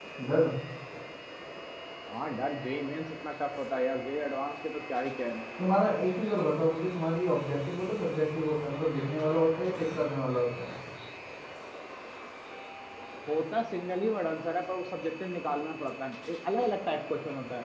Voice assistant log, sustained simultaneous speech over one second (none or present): none